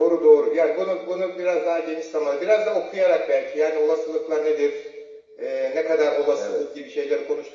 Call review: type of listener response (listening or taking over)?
listening